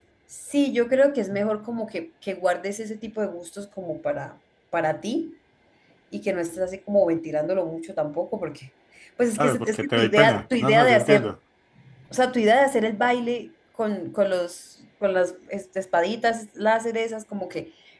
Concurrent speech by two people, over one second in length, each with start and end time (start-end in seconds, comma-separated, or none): 9.3-11.3